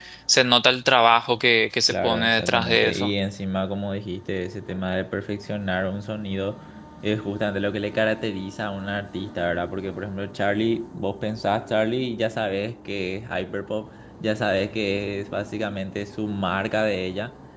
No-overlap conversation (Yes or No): No